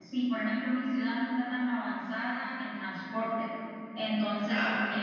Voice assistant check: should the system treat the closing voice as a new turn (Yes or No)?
No